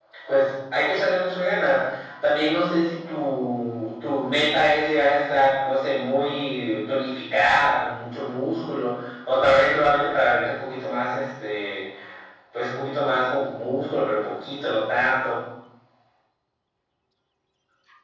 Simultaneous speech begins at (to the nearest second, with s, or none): none